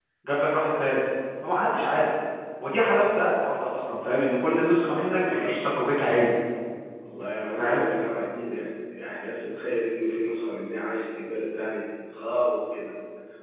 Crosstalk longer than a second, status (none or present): none